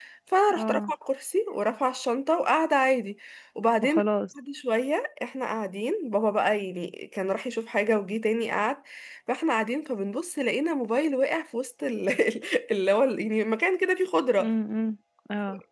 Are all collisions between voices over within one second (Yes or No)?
Yes